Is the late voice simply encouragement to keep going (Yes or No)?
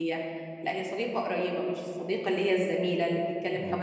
Yes